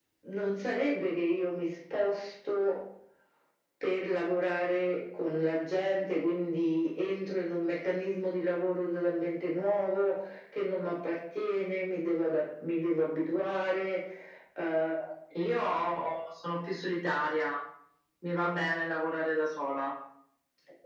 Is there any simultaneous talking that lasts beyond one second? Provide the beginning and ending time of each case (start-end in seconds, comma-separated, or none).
none